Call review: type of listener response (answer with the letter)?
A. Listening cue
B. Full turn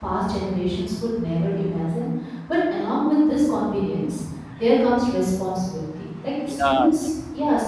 A